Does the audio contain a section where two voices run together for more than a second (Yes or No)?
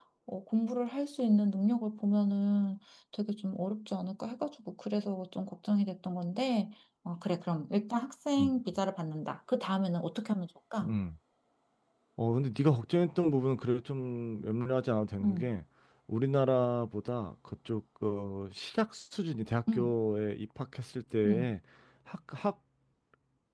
No